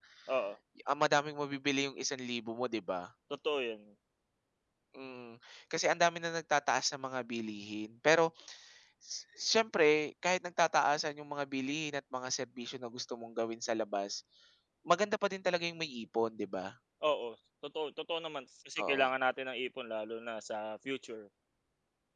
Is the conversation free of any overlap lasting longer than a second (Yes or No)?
Yes